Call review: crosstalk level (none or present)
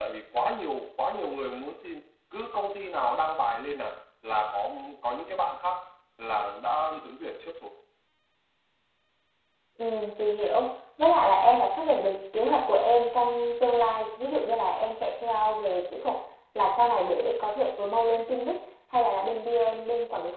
none